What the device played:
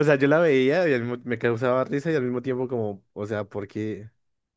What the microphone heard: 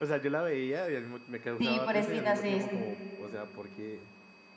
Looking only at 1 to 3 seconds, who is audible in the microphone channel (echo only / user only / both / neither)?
both